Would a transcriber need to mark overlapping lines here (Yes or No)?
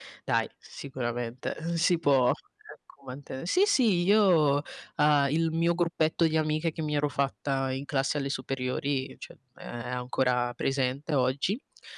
No